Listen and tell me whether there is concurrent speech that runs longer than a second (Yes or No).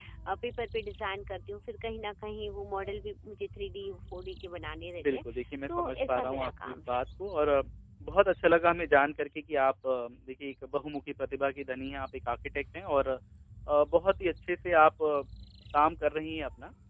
Yes